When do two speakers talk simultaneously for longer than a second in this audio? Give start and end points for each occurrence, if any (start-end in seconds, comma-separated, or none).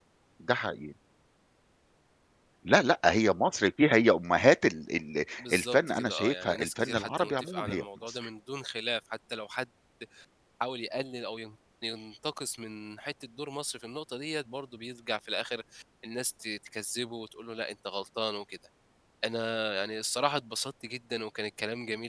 5.4-8.3